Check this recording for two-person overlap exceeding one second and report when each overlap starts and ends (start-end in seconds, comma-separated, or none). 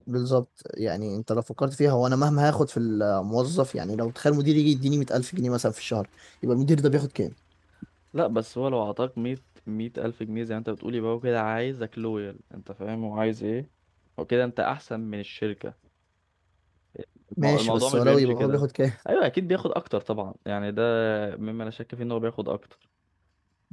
17.4-18.6